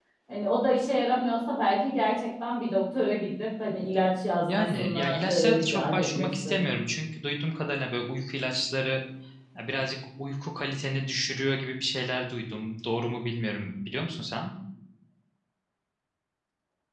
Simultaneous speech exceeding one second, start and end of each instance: 4.5-6.6

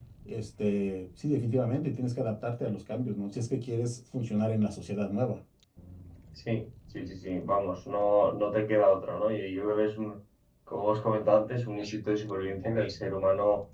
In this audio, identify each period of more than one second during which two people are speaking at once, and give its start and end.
none

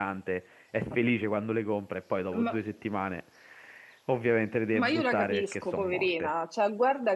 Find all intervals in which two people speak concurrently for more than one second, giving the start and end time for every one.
4.7-6.3

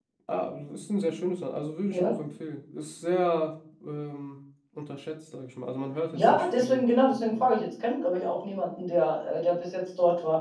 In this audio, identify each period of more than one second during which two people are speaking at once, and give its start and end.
6.1-7.5

